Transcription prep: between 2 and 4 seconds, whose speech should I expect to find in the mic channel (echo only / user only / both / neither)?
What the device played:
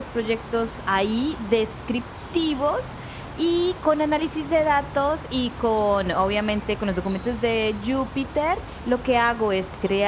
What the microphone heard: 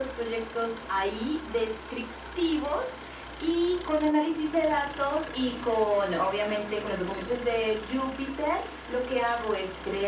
echo only